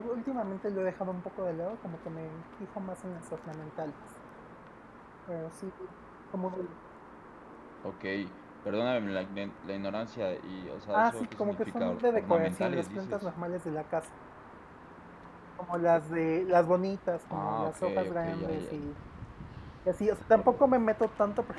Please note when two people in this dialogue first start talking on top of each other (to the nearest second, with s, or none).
11 s